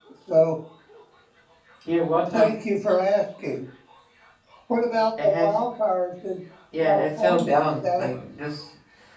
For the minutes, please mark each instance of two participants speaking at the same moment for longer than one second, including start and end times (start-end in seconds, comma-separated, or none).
6.8-8.1